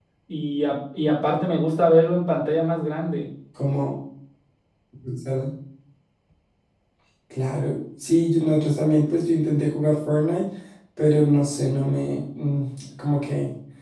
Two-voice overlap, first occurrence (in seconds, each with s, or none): none